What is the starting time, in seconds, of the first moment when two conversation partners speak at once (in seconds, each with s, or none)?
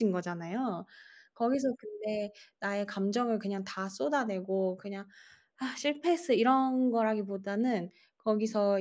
none